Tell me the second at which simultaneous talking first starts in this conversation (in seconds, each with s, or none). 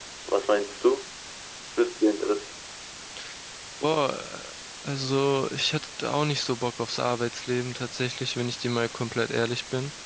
none